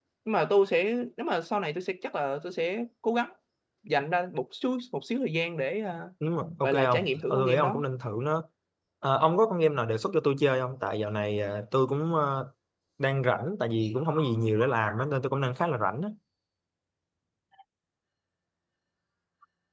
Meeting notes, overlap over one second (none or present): present